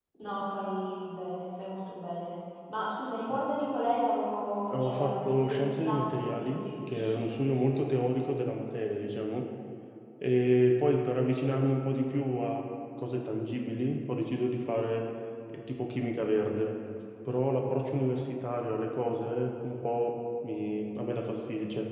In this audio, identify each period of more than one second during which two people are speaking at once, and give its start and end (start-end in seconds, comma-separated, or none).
4.7-7.2